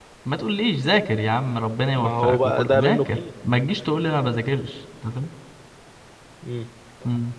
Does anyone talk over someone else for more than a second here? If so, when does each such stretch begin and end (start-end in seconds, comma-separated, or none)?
1.9-3.2